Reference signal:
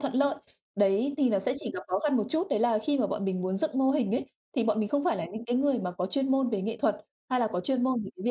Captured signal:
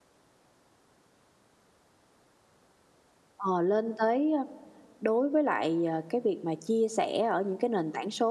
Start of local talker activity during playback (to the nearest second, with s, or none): 3 s